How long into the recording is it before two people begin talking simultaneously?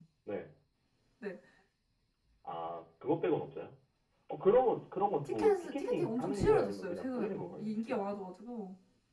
5.2 s

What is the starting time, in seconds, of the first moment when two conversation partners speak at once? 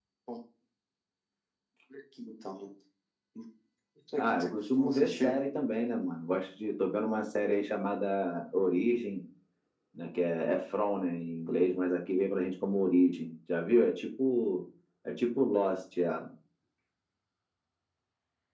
4.2 s

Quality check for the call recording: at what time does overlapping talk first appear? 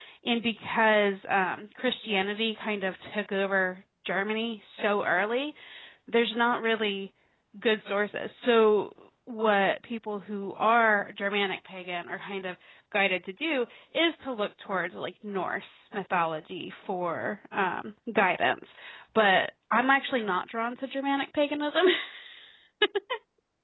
none

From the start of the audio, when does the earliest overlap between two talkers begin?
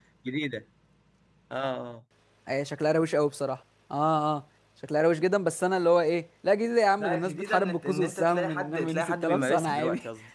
7.0 s

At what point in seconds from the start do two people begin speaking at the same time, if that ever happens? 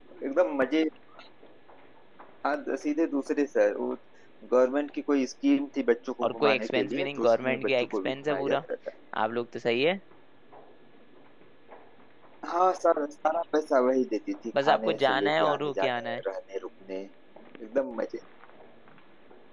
6.2 s

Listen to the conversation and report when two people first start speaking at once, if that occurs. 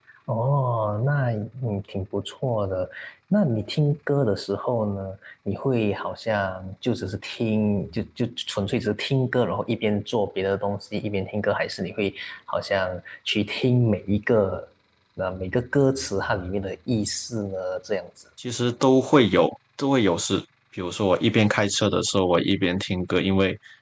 none

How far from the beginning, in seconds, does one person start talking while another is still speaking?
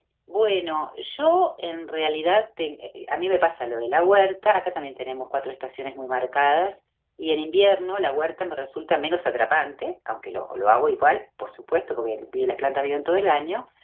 none

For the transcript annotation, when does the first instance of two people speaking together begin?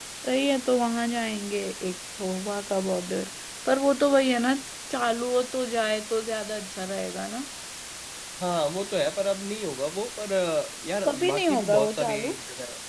11.0 s

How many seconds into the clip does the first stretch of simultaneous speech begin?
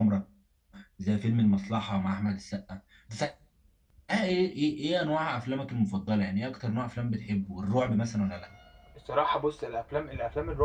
none

